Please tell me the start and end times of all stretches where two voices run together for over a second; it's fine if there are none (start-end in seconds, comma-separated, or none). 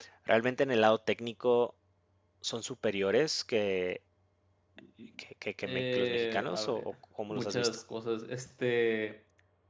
5.7-6.9